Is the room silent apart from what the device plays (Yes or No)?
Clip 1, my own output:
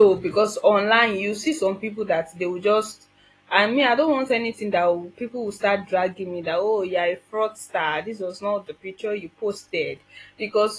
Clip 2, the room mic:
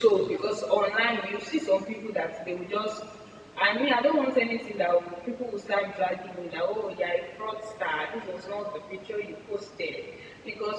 Yes